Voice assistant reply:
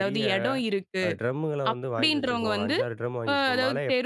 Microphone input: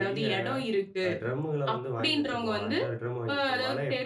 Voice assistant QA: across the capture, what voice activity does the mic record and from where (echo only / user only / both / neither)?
echo only